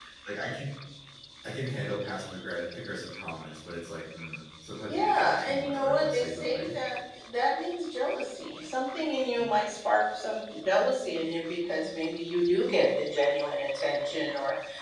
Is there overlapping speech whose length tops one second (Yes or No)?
Yes